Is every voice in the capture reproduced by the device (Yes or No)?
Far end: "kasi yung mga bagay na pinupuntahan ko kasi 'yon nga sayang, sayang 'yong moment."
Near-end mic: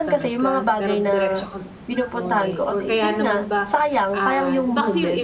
No